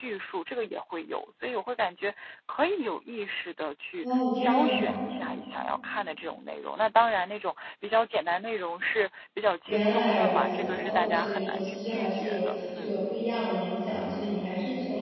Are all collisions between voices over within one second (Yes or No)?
No